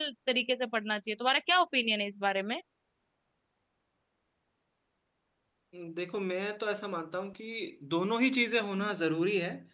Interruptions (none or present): none